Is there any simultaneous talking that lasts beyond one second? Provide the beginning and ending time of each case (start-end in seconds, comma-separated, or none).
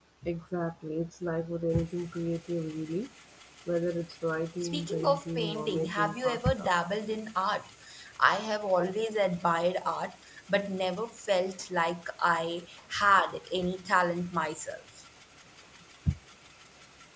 4.6-6.7